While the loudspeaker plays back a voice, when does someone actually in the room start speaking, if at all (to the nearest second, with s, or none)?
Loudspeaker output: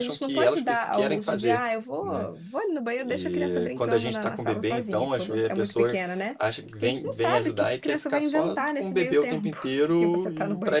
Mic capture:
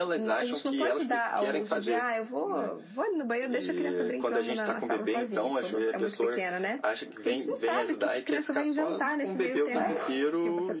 10 s